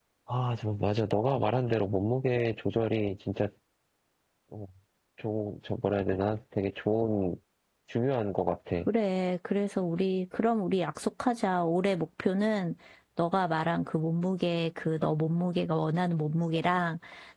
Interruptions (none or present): none